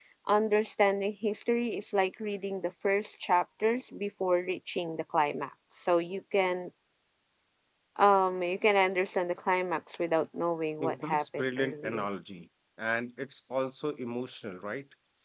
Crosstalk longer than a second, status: present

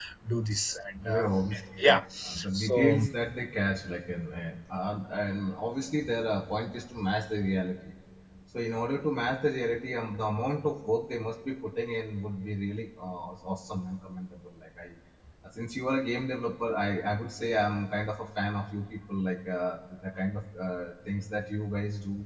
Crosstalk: present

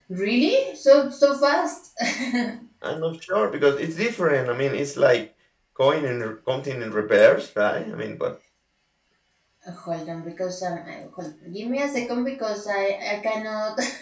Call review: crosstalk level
none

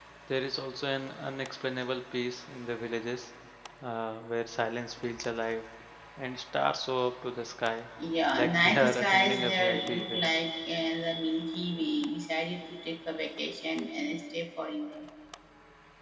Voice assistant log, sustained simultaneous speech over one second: present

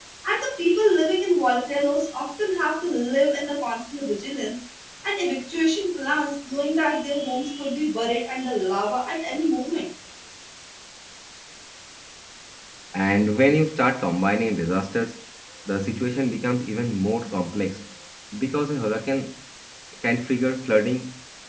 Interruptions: none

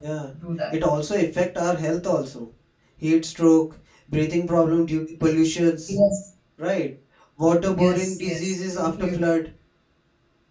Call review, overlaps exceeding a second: present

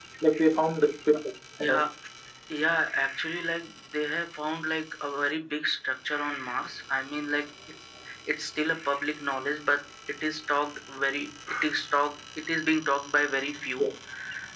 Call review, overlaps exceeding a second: none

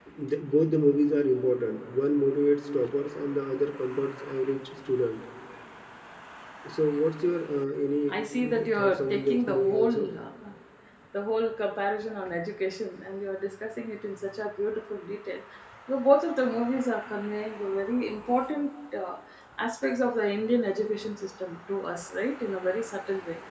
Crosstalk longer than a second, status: present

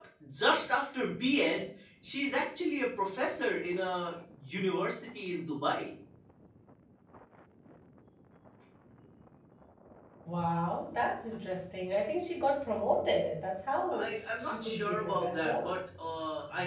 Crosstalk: present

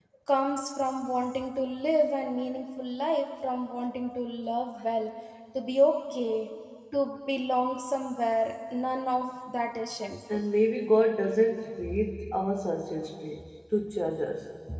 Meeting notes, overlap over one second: none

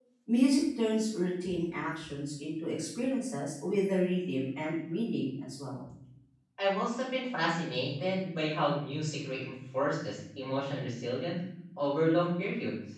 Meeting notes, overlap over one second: none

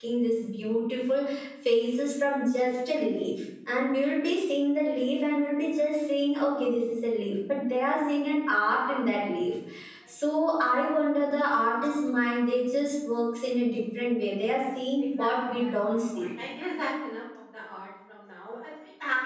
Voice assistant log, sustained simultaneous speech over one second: present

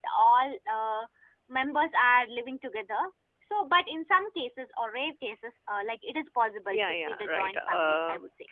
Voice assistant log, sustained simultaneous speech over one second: present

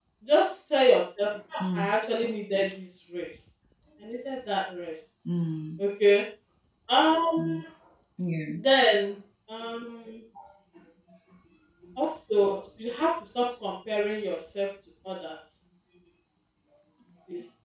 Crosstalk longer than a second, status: none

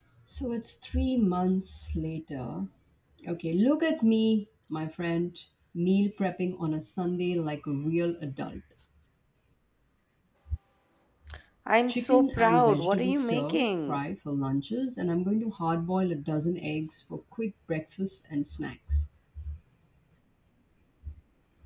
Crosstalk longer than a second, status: present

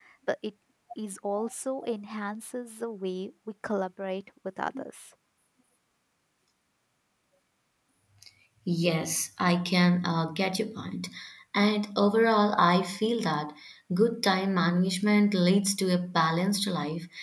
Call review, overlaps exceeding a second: none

